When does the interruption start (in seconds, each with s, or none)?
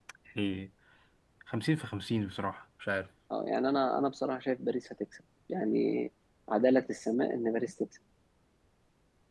none